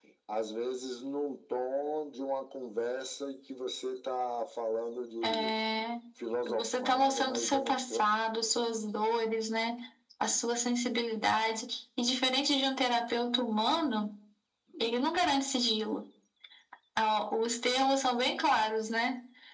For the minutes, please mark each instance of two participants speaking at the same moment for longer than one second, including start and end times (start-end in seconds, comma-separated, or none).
6.5-8.0